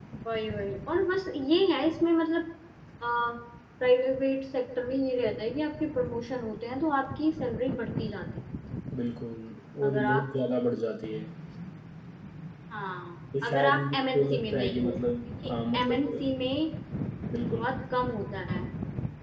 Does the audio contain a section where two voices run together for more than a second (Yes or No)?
Yes